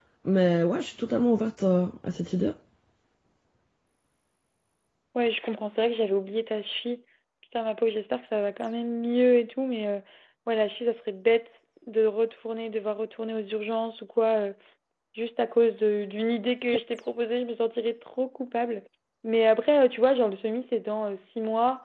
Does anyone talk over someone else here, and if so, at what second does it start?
none

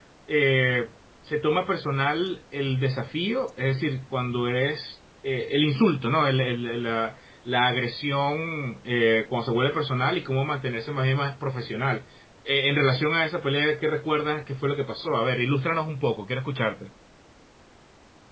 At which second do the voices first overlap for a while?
none

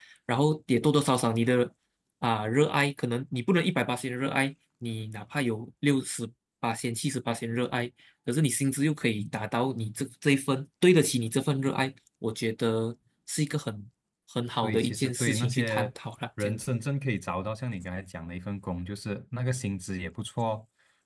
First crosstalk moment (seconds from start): 14.6 s

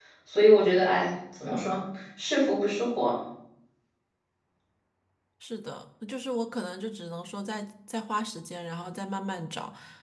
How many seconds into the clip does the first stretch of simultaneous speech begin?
none

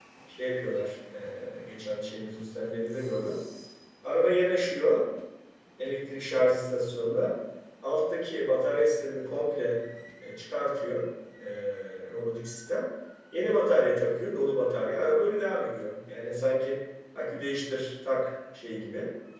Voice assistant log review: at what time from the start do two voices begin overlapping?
none

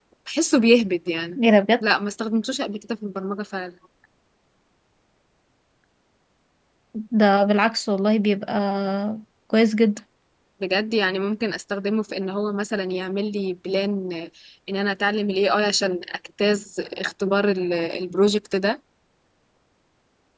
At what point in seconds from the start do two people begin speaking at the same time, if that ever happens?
none

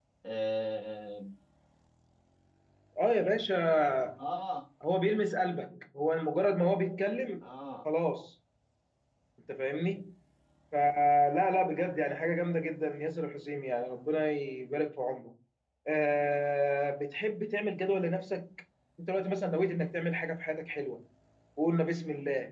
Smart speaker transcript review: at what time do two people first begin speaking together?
none

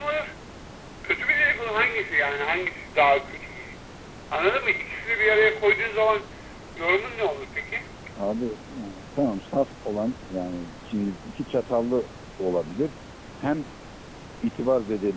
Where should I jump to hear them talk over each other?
none

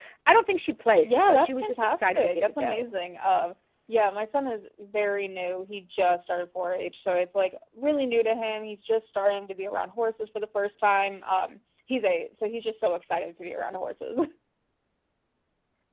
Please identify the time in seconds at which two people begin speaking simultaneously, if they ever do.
1.0 s

